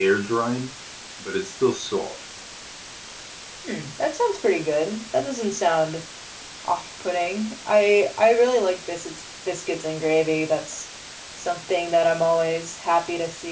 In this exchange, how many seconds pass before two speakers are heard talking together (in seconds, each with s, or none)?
none